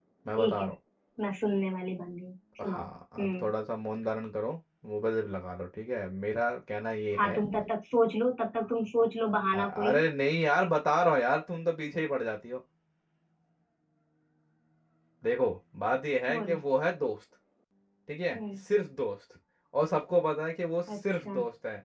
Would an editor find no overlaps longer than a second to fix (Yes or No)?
Yes